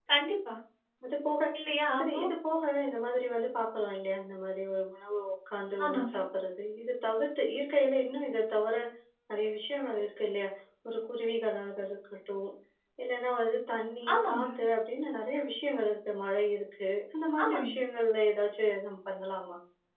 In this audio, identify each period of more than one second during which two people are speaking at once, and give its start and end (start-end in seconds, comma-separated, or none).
none